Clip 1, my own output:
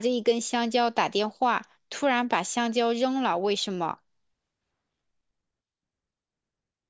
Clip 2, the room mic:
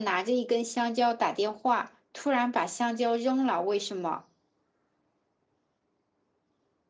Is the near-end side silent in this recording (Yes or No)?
Yes